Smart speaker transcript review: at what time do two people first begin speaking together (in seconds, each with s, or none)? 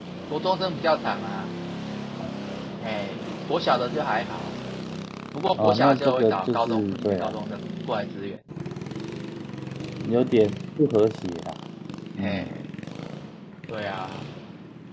5.6 s